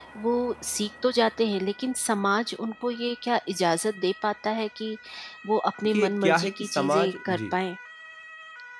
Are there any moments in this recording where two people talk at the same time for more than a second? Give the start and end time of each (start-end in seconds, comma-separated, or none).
5.9-7.5